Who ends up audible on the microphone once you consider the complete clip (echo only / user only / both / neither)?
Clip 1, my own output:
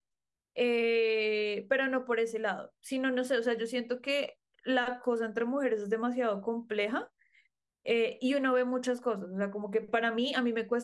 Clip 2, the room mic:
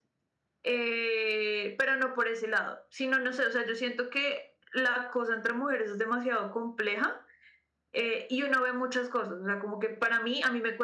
echo only